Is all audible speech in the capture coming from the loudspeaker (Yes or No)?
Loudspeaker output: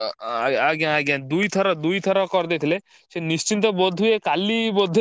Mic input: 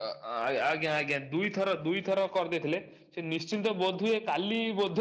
Yes